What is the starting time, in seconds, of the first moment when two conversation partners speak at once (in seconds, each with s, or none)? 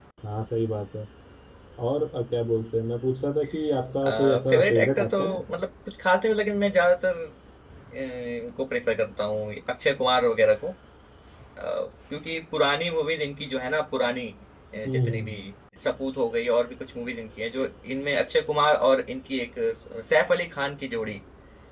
4.1 s